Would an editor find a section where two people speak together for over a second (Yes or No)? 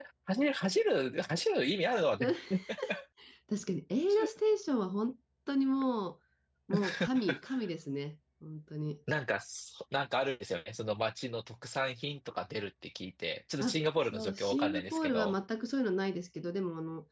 Yes